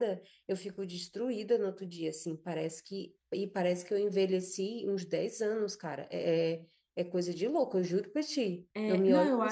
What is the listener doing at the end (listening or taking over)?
taking over